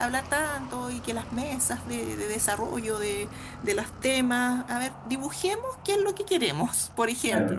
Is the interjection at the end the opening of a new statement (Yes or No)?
Yes